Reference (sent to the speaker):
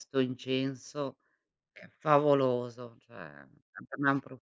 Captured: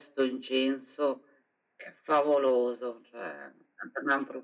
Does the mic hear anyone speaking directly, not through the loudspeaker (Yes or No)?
No